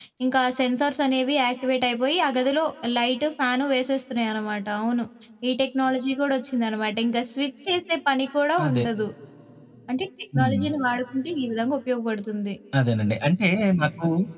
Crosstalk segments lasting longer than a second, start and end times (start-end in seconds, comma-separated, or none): none